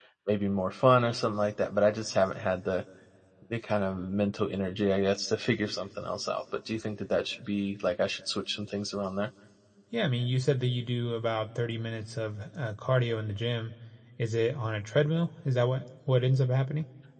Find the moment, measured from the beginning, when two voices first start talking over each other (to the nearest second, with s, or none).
none